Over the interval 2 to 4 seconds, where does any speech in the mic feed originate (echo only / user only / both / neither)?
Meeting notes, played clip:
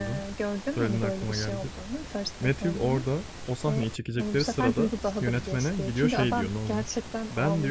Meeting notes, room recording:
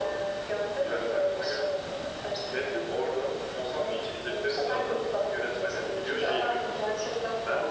echo only